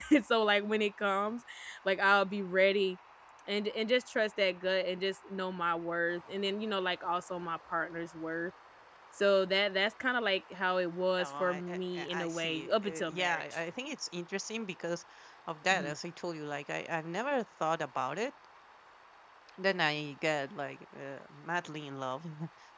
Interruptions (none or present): present